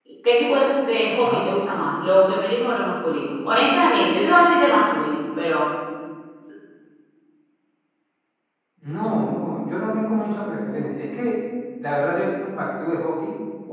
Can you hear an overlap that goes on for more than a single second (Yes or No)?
No